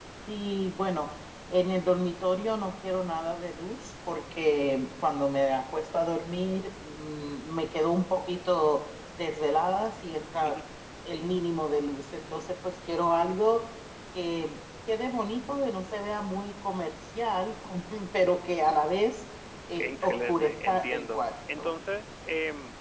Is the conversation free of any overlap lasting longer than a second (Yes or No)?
No